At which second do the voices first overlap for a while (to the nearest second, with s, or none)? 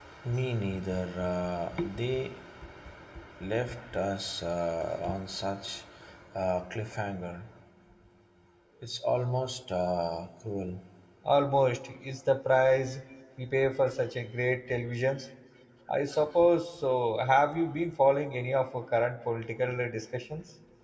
none